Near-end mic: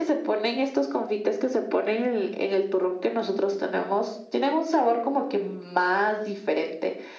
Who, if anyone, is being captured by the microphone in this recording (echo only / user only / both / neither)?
echo only